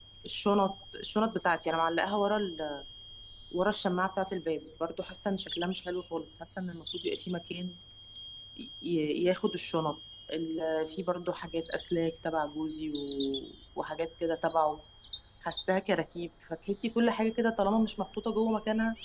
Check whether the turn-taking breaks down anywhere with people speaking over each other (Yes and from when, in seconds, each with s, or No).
No